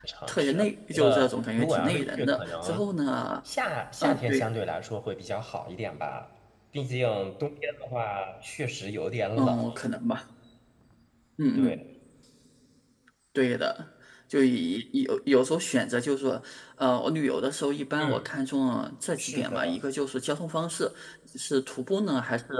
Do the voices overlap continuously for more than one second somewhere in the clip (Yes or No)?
Yes